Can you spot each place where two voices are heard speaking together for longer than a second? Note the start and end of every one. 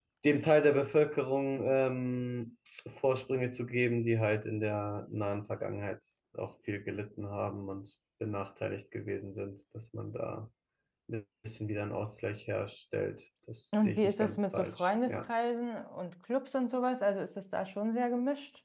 13.8-15.2

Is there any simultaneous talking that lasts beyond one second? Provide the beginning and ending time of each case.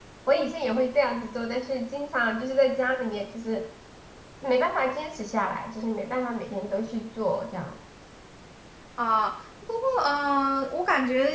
none

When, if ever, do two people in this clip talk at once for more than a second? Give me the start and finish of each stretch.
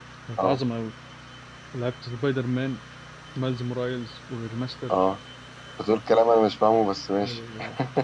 none

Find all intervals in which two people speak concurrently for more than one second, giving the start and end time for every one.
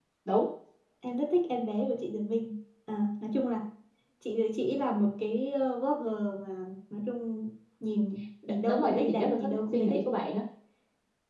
8.7-10.0

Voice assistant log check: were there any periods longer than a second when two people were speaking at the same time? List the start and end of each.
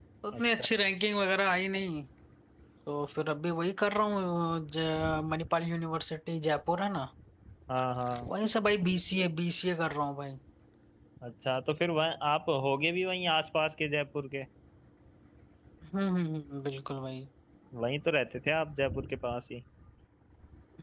none

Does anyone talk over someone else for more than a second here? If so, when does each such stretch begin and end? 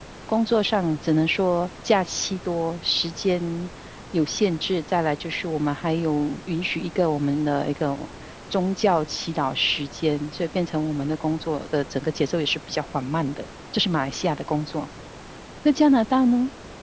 none

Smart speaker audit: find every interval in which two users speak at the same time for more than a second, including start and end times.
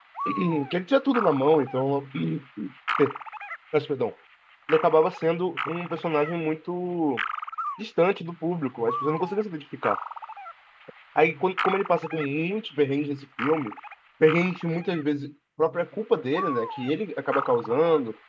none

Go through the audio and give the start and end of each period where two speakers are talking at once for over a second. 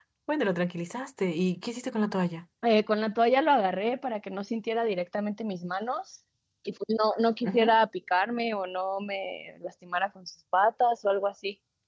none

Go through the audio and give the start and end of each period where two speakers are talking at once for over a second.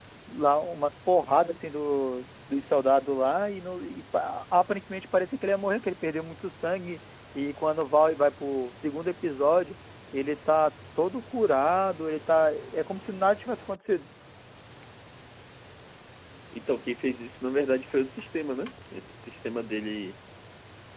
none

